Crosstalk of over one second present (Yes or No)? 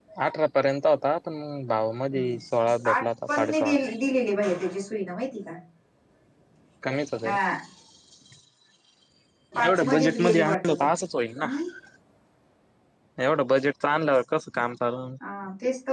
Yes